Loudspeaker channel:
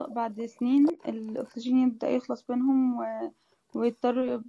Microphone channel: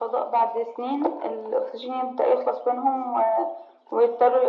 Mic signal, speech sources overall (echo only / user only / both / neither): echo only